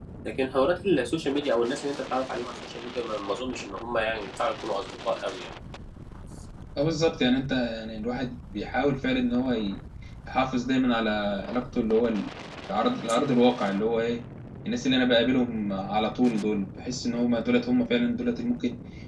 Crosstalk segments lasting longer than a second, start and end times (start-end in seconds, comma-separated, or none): none